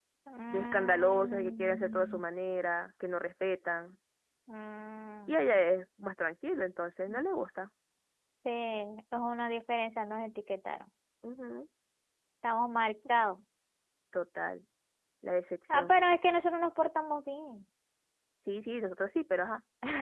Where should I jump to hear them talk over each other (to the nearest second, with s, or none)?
1 s